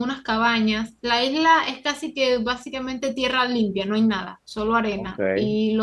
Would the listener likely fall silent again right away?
Yes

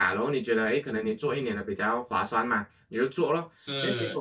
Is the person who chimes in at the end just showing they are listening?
Yes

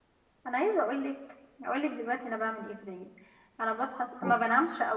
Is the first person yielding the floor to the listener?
No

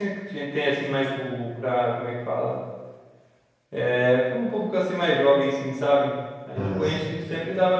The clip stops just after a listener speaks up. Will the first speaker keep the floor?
Yes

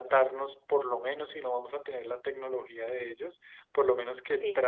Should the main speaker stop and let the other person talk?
No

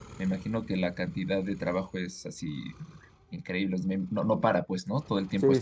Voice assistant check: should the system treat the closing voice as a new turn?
Yes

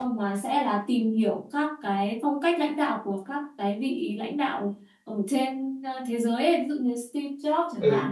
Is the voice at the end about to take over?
No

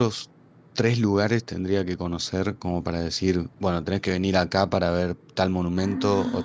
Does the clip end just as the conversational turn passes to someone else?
No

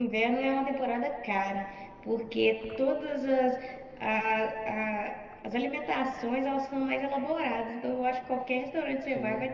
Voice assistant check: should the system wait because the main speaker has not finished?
Yes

